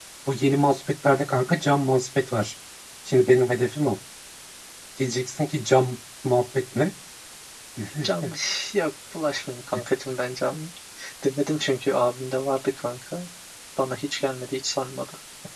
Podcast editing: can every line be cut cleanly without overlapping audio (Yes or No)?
Yes